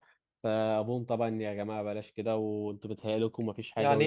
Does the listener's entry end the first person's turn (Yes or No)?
Yes